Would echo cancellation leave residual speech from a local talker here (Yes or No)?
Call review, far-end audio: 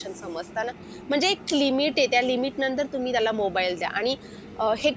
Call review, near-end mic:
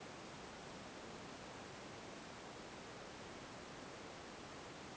No